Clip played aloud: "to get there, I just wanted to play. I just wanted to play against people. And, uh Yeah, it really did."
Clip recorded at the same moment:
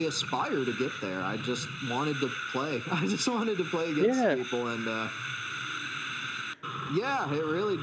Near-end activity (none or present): present